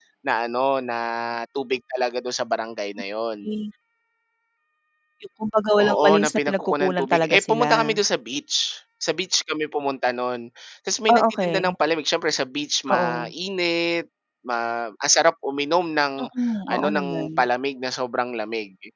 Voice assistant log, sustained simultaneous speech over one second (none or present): present